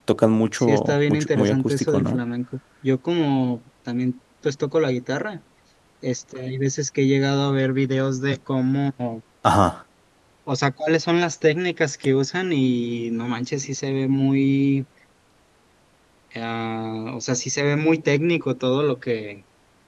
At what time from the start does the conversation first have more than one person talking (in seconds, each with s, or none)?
0.6 s